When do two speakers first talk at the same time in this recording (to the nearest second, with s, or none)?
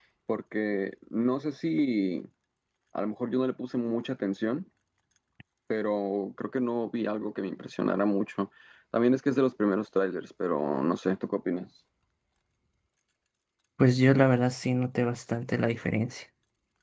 none